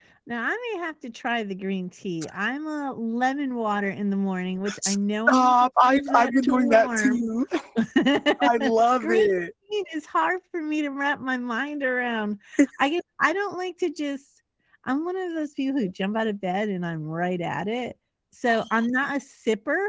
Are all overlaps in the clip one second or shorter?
No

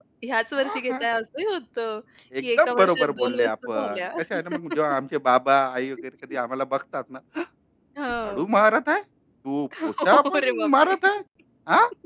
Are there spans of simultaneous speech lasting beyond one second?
Yes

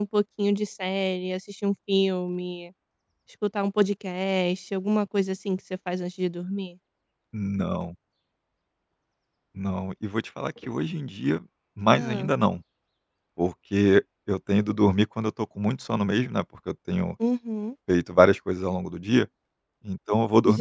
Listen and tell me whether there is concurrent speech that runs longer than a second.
No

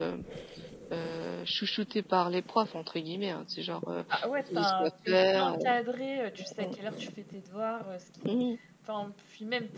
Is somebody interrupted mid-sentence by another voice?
Yes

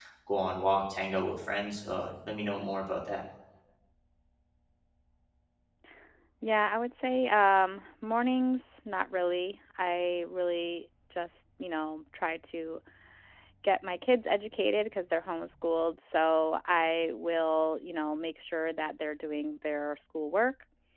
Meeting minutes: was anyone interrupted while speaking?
No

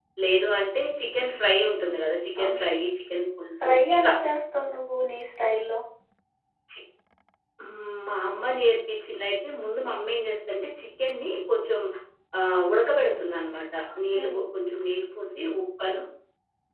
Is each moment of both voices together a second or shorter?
Yes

